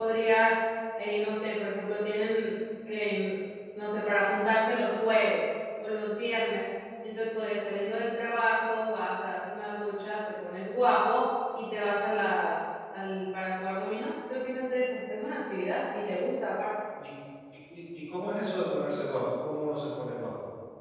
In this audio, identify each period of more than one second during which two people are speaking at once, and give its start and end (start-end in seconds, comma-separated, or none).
none